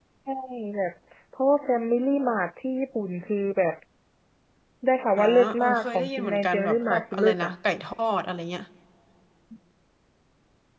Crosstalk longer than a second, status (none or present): present